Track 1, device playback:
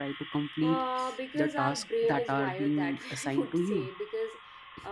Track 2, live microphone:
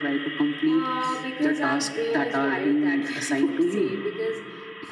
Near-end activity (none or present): none